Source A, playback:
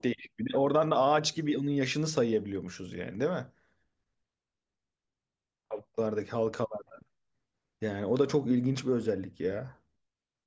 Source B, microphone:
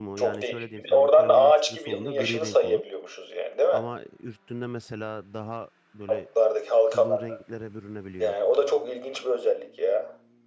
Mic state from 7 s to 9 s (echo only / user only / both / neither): both